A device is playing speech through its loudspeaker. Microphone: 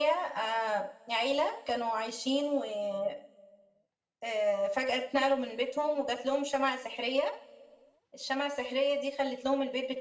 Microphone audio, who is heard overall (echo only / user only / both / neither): echo only